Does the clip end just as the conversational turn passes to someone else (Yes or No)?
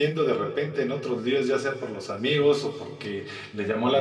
No